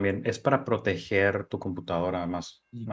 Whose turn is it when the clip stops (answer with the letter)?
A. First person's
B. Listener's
B